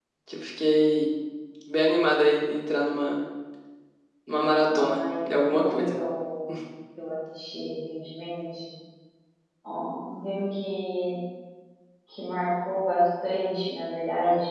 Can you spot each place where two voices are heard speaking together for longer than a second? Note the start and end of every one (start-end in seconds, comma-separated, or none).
4.8-6.0